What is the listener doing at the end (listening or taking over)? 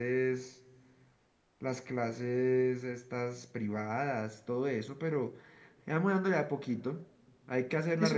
listening